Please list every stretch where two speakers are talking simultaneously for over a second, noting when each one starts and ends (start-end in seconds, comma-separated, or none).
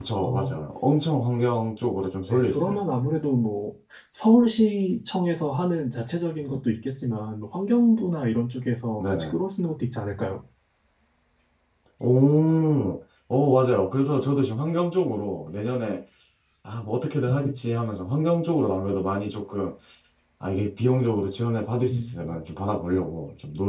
none